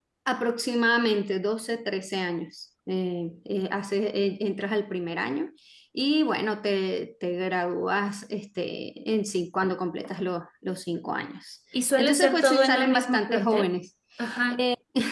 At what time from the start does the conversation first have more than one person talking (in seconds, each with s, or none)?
12.0 s